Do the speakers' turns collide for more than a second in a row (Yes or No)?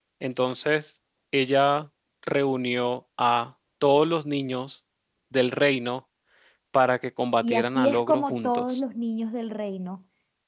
Yes